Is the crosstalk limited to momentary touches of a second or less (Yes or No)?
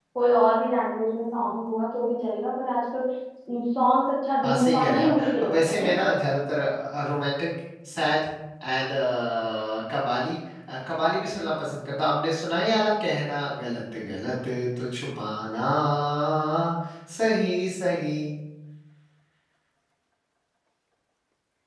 No